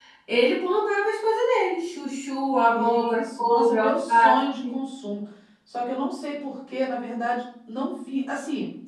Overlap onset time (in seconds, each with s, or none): 2.7 s